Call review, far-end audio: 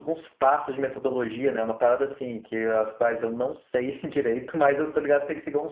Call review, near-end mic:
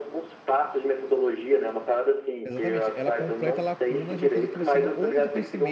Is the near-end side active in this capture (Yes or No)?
Yes